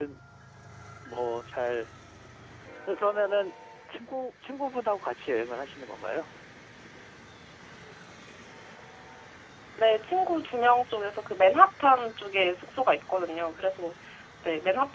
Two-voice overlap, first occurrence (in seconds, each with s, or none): none